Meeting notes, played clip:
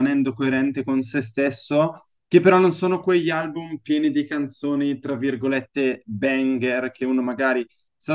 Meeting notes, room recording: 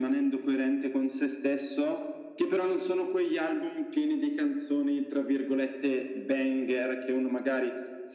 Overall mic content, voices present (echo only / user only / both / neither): echo only